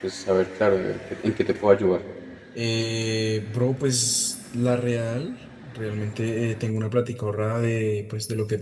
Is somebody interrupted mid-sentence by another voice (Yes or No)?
No